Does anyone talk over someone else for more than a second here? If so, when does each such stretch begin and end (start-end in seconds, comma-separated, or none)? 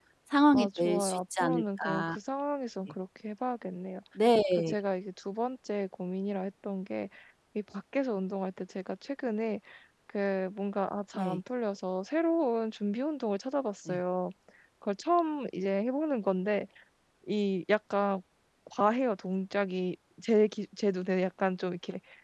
0.5-2.2